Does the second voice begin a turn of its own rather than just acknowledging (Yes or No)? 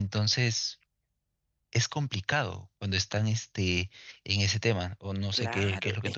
Yes